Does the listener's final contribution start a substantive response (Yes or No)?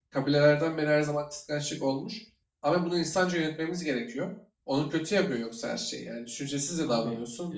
Yes